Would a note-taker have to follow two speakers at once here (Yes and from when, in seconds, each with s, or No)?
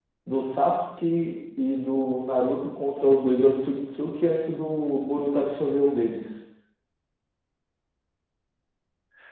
No